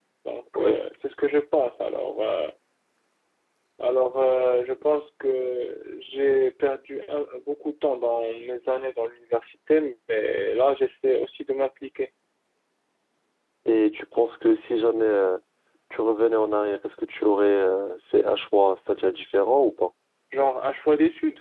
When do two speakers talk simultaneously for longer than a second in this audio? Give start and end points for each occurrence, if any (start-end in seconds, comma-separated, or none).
none